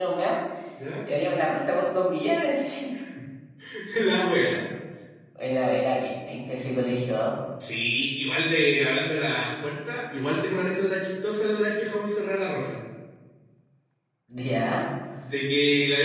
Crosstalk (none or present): none